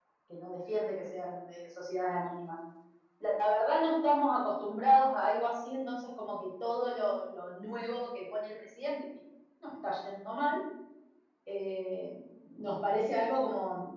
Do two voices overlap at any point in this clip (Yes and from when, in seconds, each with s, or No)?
No